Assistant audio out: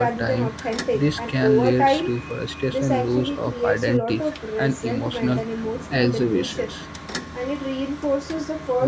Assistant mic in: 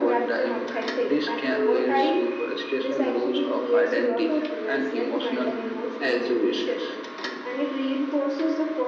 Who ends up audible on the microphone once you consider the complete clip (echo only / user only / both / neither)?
echo only